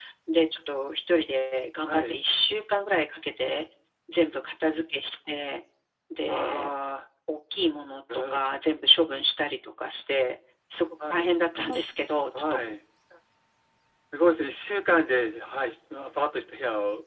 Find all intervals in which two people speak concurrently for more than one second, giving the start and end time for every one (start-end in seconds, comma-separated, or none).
none